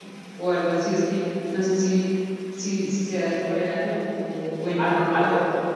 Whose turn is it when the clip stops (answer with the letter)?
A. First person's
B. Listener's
B